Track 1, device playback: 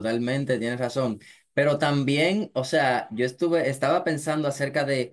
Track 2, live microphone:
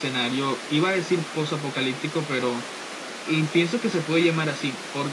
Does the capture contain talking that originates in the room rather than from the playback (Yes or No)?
Yes